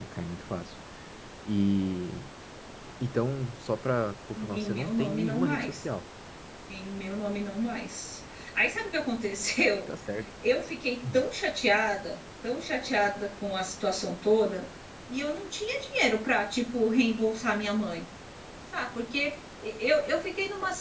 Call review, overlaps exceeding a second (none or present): present